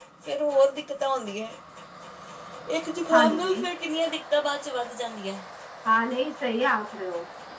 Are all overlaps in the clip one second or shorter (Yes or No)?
Yes